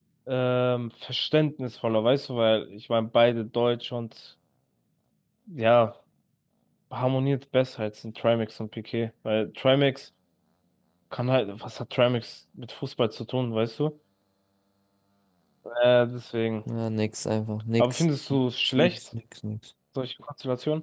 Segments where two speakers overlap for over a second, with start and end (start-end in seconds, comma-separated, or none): none